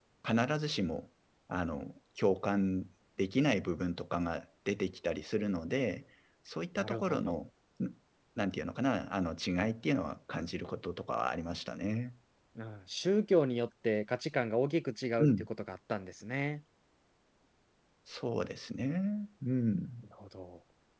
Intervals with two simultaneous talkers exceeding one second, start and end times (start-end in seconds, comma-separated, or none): none